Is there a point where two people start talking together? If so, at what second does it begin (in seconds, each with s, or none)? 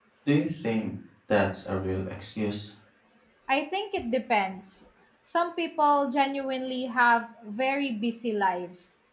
none